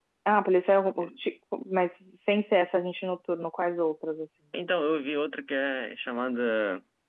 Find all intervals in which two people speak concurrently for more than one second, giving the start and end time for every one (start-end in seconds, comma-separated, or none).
none